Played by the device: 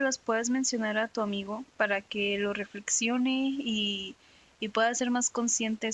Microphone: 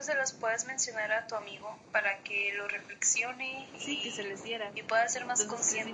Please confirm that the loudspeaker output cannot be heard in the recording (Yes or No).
No